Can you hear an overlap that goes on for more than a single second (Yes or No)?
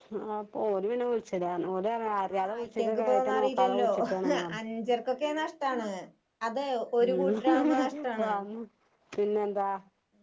Yes